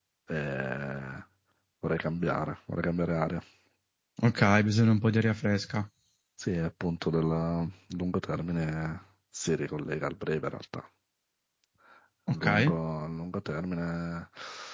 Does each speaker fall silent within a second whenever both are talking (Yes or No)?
Yes